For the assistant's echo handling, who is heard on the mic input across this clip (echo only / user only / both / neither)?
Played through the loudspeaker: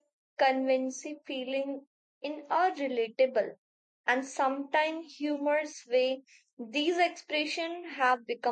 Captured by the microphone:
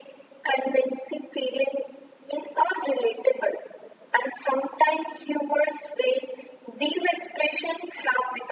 echo only